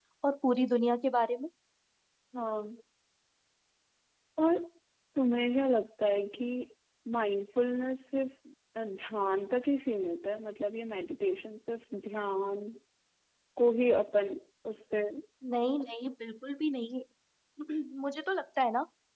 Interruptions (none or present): none